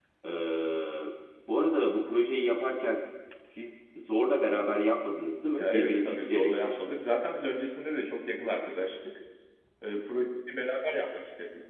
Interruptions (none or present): present